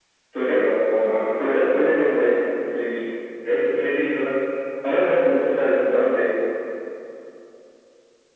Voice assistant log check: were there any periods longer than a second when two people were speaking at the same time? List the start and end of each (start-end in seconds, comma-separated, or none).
none